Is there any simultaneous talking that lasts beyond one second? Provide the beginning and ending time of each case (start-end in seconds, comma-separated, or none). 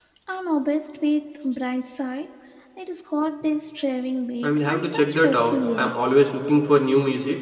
4.4-6.2